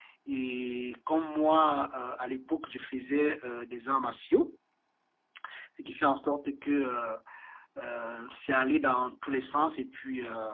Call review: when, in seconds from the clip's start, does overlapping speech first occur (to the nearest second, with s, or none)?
none